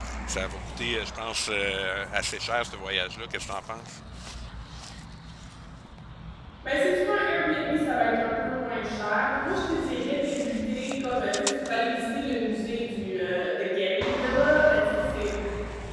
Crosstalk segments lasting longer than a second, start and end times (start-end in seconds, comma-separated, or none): none